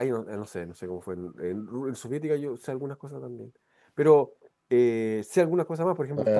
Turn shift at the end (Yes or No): Yes